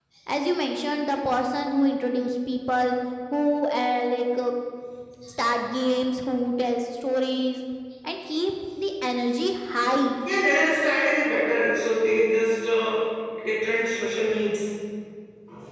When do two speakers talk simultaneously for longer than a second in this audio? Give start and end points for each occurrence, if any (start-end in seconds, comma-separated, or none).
none